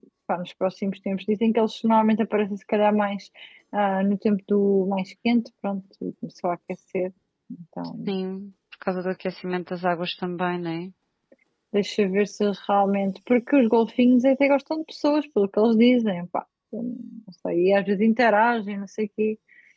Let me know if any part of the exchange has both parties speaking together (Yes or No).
No